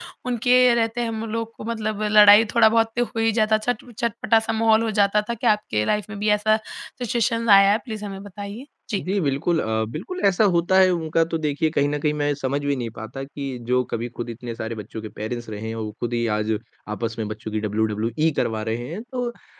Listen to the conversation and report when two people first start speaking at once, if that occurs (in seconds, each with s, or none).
none